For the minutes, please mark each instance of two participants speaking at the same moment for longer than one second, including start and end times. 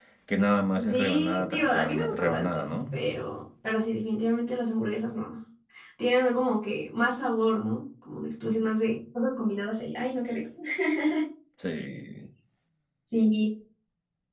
0.9-3.0

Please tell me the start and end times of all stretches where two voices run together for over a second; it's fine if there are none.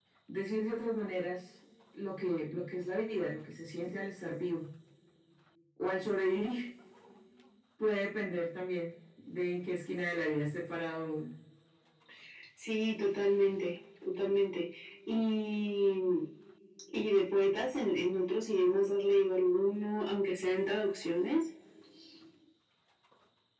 none

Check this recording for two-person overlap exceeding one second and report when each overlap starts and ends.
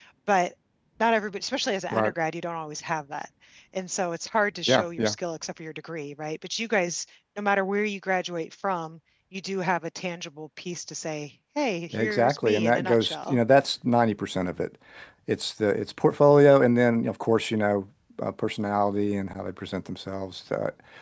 11.9-13.4

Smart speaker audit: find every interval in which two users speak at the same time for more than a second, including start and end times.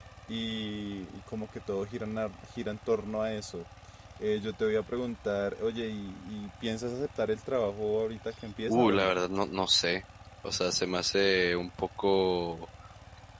none

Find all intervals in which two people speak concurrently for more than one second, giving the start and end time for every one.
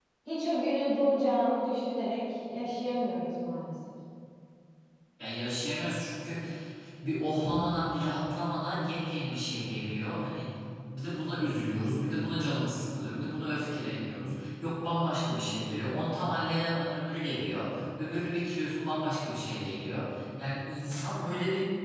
none

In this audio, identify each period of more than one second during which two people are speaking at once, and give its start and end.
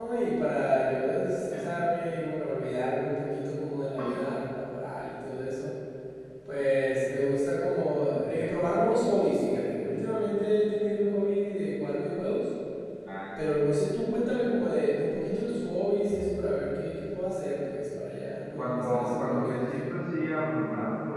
18.6-20.0

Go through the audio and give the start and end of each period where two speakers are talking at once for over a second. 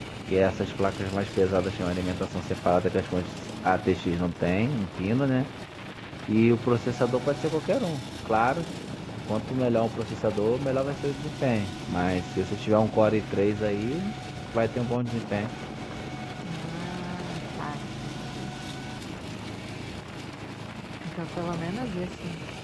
none

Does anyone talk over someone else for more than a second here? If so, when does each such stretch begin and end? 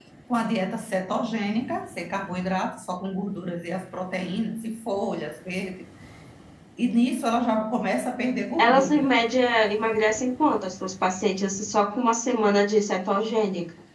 none

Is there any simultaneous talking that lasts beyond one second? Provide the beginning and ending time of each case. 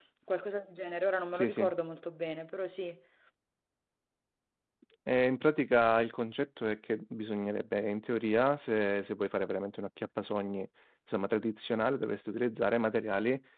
none

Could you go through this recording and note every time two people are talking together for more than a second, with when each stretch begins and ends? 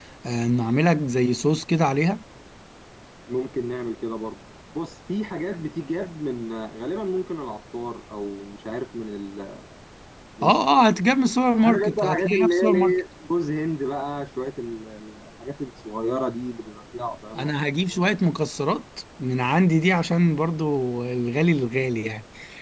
11.6-13.0

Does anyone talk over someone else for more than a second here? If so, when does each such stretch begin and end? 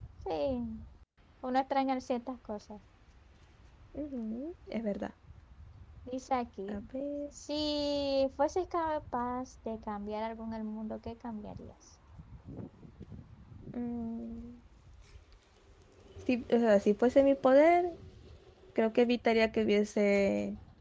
none

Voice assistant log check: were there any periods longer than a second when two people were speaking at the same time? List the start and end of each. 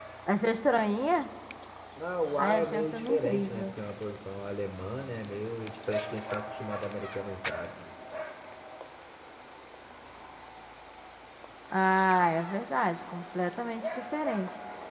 2.4-3.7

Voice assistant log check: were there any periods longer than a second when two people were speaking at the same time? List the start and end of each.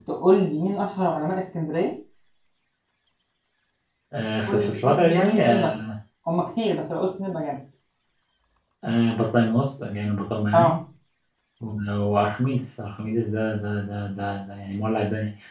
4.5-5.8

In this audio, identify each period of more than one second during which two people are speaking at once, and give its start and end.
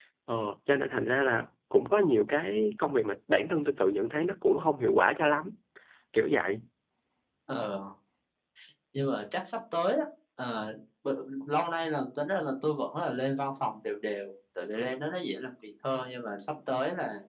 none

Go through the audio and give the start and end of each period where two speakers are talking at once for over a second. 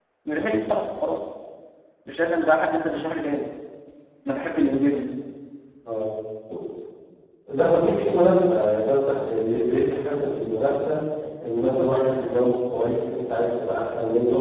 none

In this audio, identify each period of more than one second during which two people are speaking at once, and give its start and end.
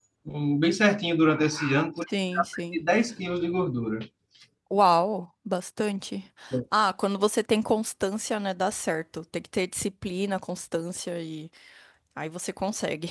none

